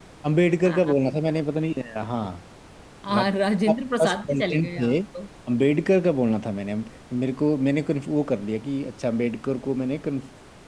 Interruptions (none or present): present